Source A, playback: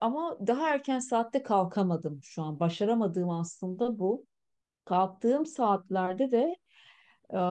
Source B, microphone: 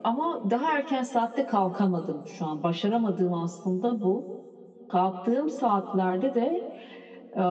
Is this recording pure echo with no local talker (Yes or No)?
Yes